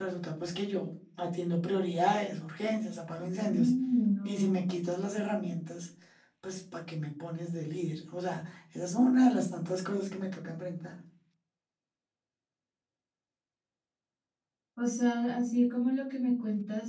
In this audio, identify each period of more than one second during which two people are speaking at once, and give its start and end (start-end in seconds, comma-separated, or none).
none